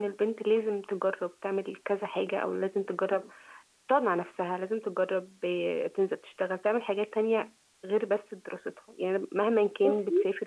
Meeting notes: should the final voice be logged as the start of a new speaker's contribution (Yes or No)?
No